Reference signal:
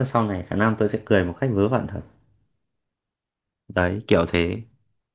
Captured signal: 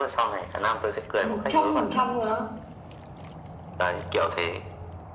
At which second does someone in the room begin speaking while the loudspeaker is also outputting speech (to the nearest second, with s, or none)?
1 s